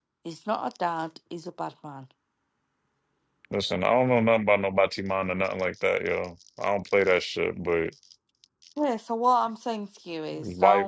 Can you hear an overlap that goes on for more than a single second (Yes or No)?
No